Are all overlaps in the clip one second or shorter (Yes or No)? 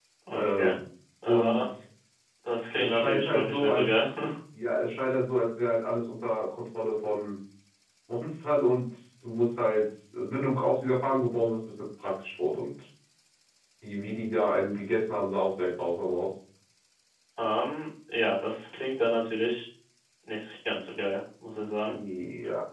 No